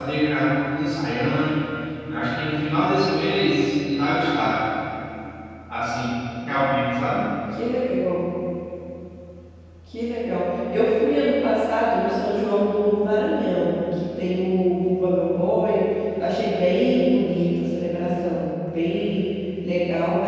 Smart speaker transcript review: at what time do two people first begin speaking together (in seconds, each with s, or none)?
none